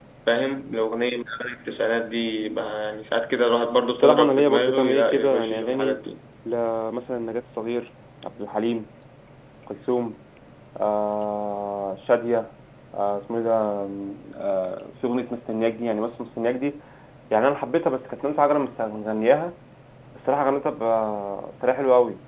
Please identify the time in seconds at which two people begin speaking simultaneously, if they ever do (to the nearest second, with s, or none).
4 s